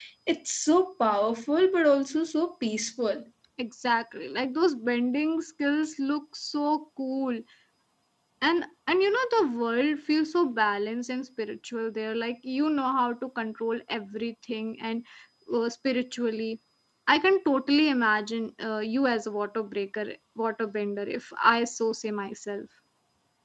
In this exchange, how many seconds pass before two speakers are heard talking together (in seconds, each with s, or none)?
none